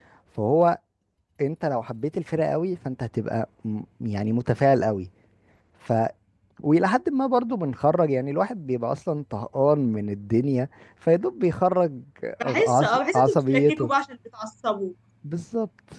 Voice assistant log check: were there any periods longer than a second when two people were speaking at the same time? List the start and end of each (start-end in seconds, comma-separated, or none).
12.4-13.9